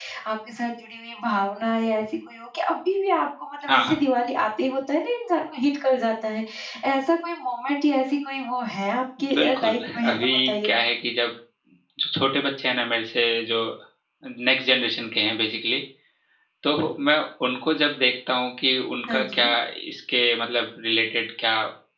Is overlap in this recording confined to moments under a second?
No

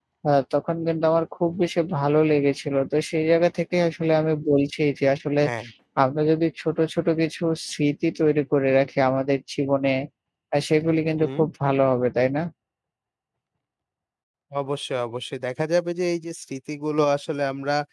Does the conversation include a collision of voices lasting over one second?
No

